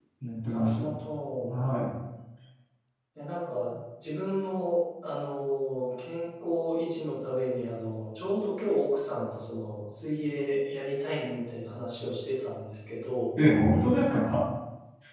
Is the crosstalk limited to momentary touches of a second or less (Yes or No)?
Yes